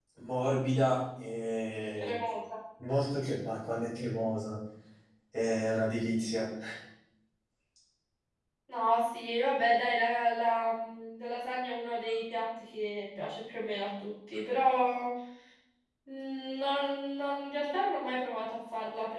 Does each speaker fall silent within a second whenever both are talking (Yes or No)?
Yes